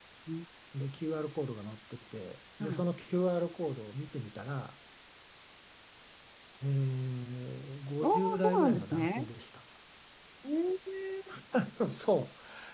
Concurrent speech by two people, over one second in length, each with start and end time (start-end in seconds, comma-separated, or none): 8.0-9.3